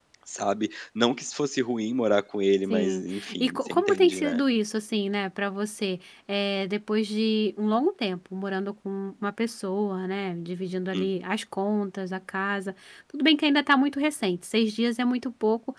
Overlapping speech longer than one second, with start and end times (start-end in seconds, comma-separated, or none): 2.7-4.4